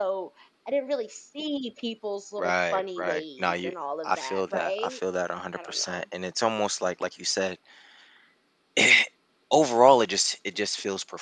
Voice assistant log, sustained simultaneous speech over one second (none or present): present